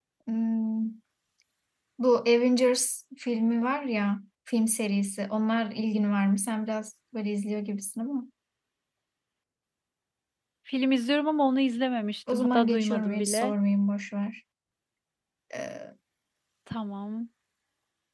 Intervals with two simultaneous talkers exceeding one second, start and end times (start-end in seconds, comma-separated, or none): 12.3-13.5